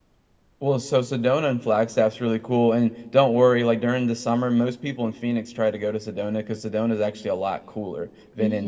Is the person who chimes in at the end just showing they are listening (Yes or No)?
Yes